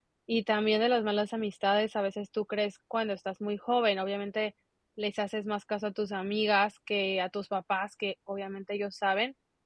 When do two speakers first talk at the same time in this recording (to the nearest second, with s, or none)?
none